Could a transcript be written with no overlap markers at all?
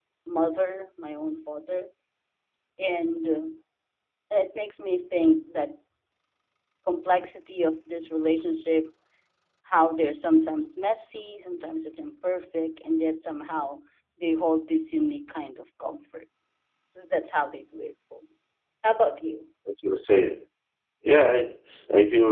Yes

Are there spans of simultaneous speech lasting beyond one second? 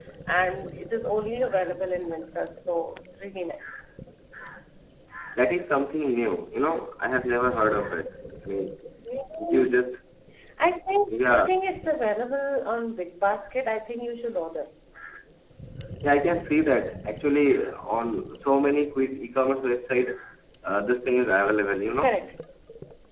No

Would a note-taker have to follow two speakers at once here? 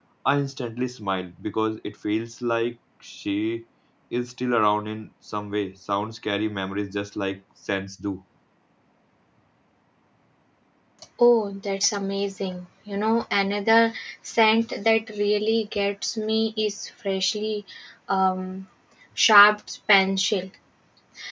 No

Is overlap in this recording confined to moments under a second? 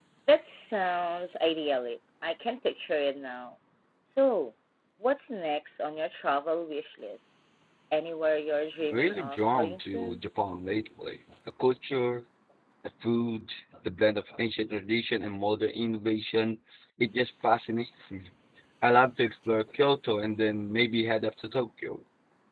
No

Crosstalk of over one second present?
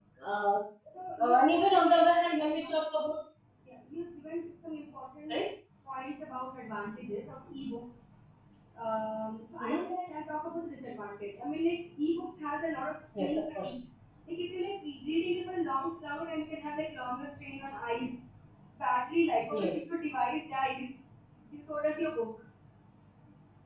Yes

